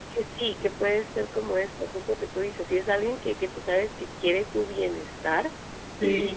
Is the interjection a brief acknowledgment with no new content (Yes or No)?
Yes